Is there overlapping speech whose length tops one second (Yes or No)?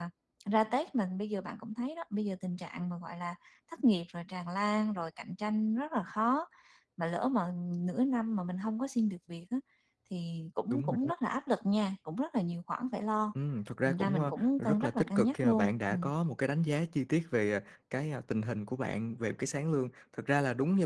Yes